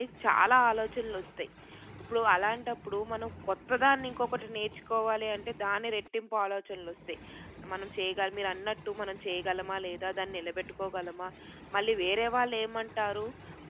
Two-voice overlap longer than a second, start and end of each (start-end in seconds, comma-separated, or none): none